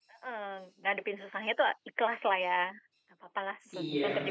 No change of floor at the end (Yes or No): No